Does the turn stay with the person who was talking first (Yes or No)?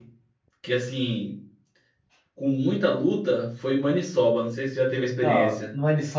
No